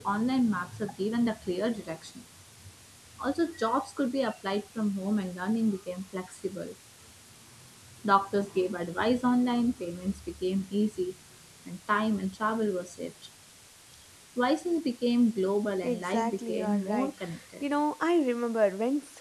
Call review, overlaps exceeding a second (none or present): present